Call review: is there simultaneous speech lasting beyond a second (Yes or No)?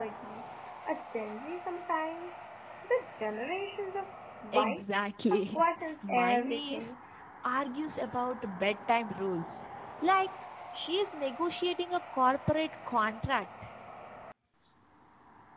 Yes